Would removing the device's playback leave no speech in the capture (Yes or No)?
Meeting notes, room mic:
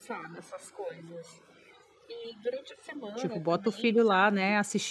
No